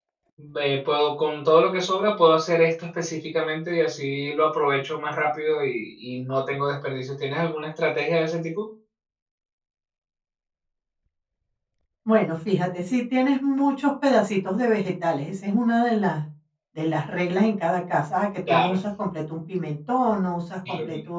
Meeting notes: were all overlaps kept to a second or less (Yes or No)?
Yes